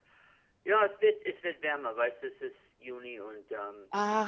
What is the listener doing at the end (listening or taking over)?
taking over